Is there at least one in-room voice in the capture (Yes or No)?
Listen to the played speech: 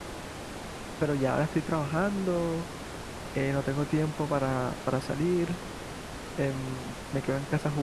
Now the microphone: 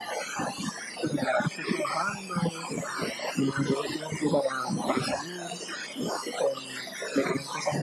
No